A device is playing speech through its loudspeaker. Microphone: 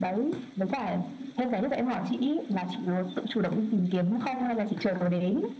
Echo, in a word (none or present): present